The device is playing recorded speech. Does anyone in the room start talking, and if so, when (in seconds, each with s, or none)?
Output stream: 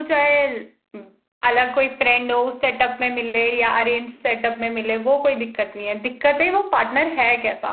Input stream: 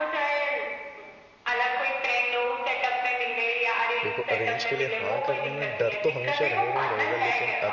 4.0 s